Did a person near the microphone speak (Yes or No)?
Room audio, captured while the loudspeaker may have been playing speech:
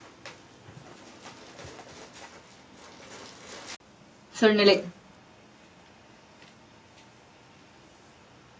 Yes